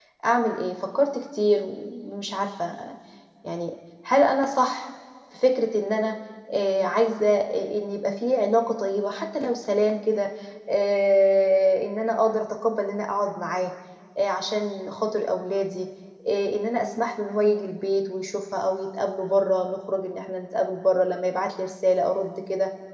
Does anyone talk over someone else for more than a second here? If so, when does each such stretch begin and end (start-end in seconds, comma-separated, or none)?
none